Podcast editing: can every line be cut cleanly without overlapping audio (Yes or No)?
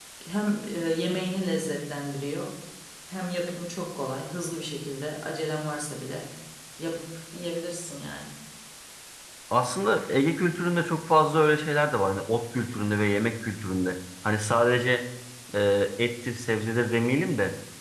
Yes